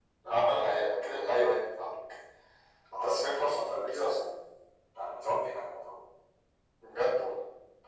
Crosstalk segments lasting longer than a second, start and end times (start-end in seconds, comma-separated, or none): 2.9-4.2